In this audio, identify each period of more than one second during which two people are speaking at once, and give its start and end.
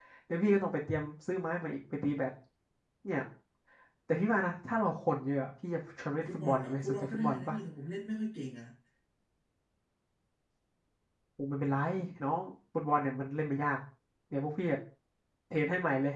6.3-7.6

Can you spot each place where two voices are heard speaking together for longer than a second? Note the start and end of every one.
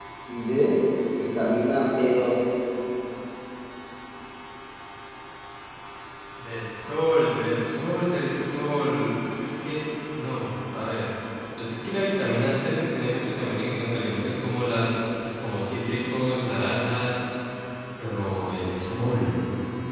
none

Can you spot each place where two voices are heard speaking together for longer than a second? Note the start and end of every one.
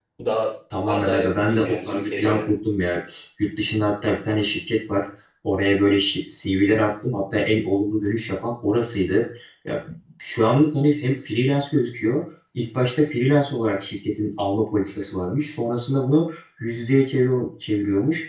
0.8-2.5

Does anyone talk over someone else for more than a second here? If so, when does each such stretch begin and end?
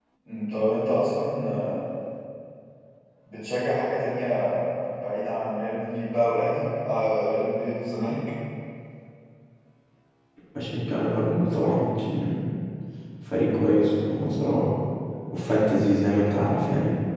none

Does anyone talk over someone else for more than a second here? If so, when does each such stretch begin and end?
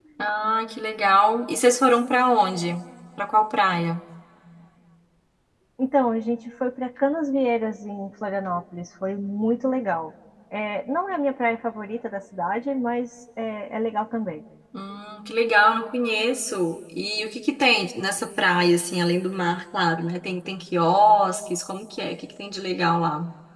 none

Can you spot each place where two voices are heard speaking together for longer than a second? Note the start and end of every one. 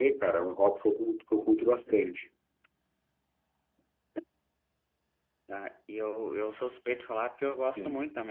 none

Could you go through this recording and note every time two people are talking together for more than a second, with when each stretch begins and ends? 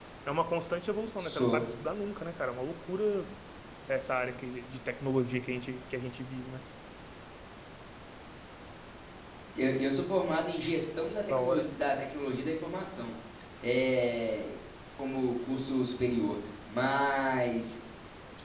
none

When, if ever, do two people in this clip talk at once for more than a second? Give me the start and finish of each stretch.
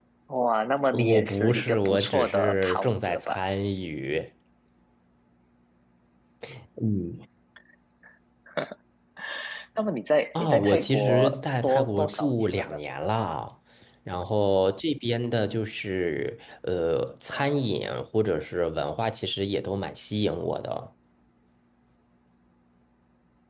0.9-3.4, 10.3-12.8

